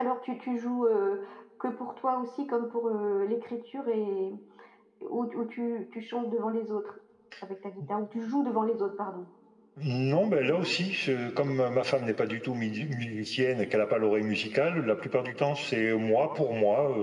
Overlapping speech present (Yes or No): No